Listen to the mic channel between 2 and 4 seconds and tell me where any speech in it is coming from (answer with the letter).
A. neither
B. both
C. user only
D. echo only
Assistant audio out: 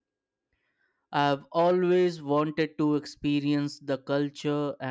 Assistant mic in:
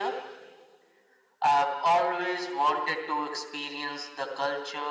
D